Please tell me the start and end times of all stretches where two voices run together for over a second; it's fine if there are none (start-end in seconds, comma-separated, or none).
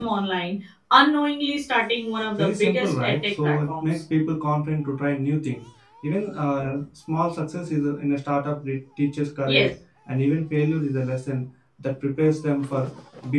2.4-3.9